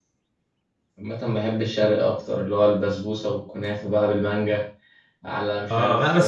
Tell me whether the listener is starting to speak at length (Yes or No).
Yes